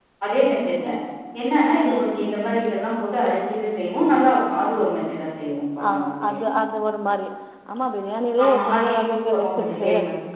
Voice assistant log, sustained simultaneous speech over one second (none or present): present